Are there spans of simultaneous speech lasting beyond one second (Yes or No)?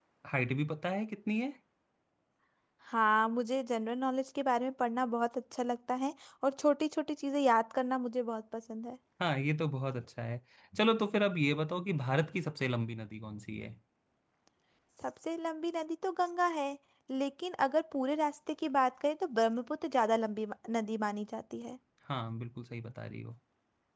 No